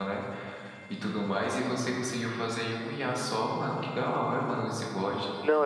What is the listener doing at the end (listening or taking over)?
taking over